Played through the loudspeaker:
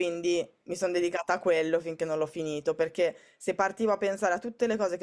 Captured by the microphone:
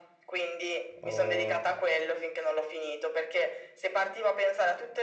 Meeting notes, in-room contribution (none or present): present